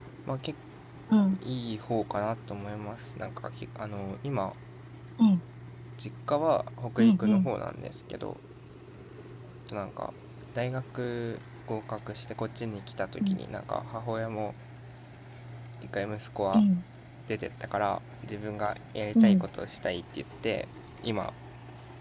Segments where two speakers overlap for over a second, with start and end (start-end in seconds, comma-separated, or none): none